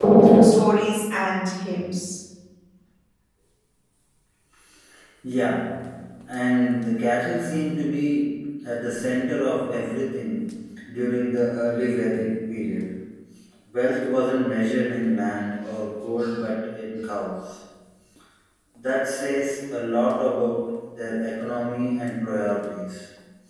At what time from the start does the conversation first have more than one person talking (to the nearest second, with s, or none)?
none